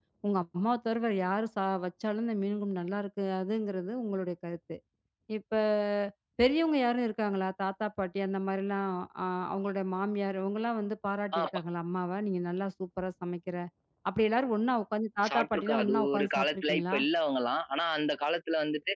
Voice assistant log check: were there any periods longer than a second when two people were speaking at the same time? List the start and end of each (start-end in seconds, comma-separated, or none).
15.3-17.0